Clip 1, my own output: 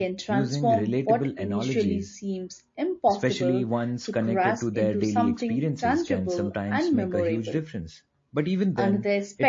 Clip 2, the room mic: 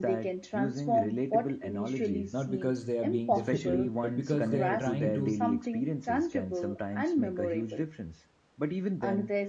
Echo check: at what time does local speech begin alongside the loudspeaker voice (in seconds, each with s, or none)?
2.3 s